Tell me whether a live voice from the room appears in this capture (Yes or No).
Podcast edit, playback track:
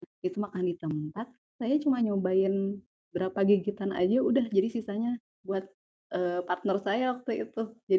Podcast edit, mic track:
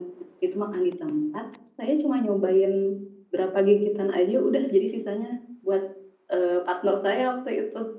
No